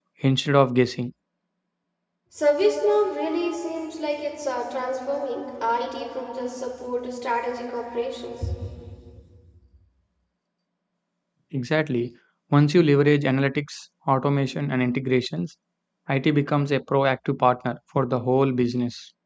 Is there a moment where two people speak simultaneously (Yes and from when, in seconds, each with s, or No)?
No